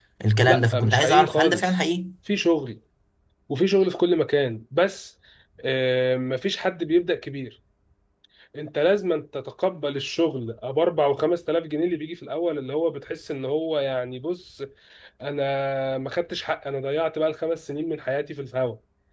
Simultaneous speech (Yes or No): Yes